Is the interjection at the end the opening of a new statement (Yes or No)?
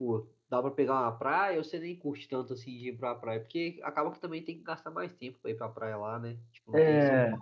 Yes